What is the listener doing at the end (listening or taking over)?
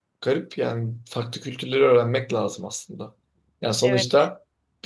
listening